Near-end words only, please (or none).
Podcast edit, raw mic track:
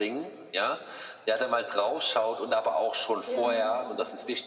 Ja,